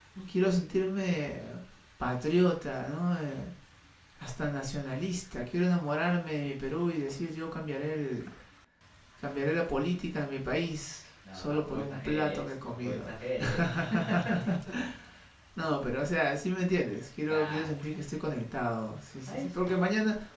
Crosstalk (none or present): present